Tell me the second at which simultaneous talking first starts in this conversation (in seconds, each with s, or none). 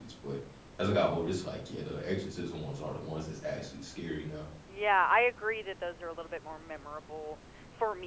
none